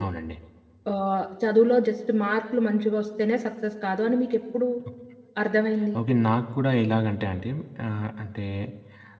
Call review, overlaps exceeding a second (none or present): none